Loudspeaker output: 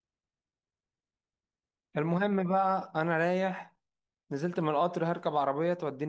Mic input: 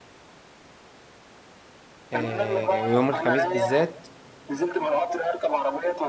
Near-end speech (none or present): present